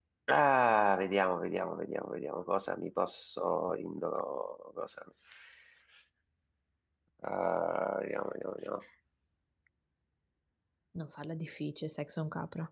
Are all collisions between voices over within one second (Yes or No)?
Yes